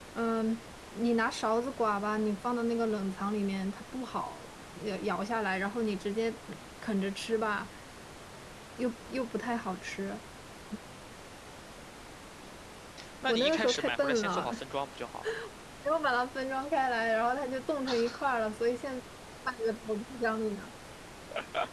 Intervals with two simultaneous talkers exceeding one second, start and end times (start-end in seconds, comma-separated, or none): 13.3-14.5